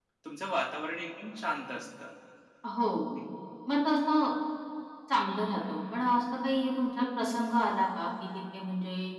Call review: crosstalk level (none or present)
none